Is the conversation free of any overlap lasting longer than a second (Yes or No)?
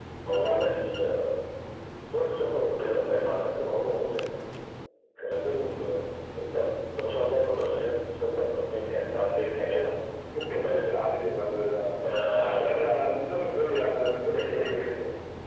Yes